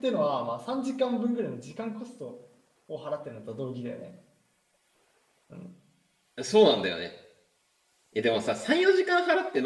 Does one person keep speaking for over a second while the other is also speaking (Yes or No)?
No